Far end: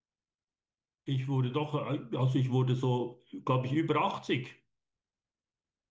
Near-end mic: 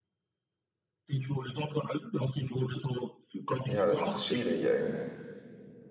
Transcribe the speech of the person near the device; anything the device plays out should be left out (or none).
Ja, das ist schwierig, ey.